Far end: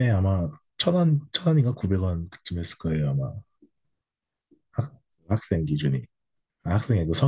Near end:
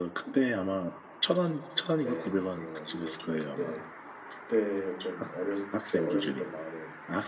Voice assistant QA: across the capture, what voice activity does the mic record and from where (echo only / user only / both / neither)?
both